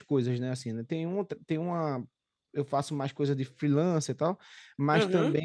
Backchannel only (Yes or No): Yes